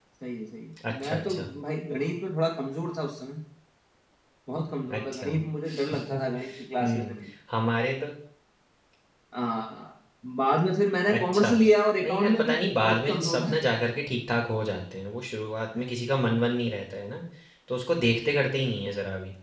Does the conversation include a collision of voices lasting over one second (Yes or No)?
Yes